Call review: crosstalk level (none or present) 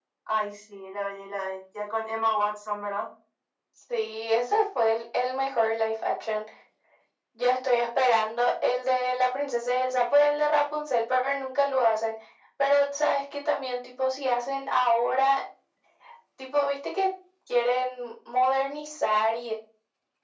none